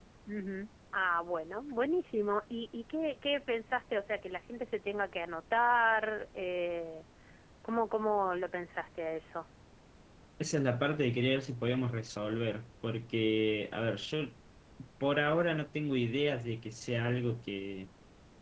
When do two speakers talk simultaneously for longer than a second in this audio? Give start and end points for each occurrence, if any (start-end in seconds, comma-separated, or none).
none